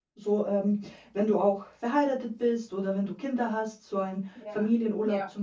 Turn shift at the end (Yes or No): Yes